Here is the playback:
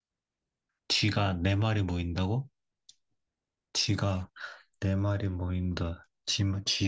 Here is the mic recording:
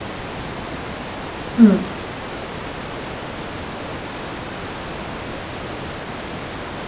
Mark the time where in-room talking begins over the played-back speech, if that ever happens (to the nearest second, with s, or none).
2 s